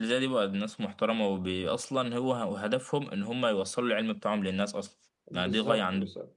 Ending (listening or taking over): taking over